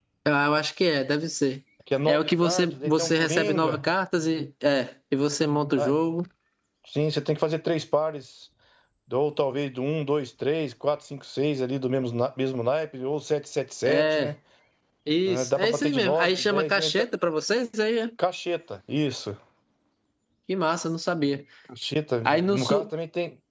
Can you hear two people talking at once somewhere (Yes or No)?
Yes